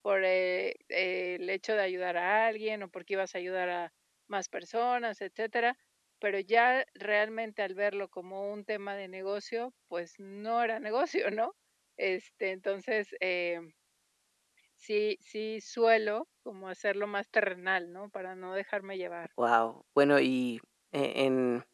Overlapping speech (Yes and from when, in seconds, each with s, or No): No